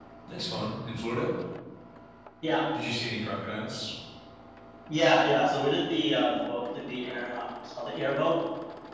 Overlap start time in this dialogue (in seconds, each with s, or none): none